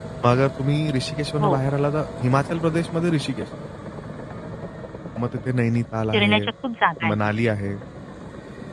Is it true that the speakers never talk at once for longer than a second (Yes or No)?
Yes